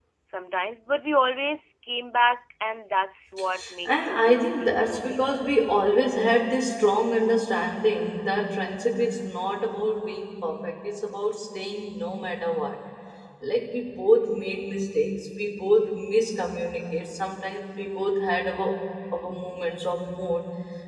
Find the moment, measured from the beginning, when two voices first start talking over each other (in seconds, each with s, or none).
3.8 s